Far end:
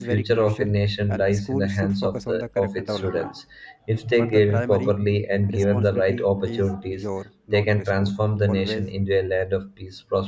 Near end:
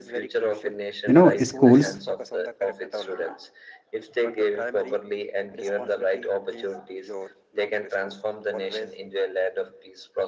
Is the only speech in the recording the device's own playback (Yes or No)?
No